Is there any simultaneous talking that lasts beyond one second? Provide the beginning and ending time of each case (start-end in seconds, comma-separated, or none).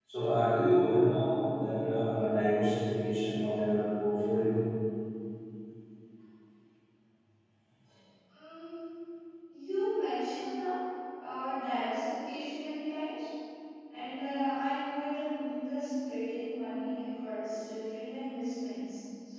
none